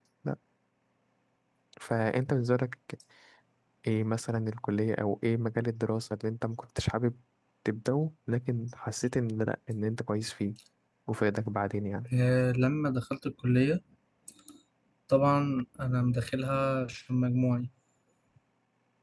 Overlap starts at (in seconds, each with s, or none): none